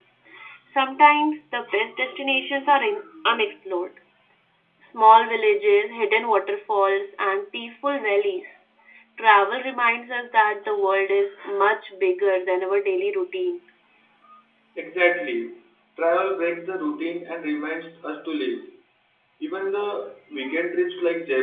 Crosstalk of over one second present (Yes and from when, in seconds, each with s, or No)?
No